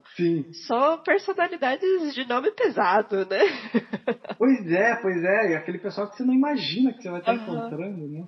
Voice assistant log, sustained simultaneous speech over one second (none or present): none